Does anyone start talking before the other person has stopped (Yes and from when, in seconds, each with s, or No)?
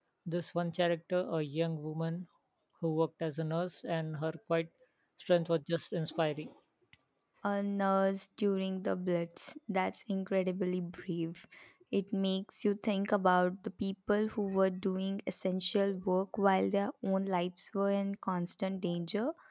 No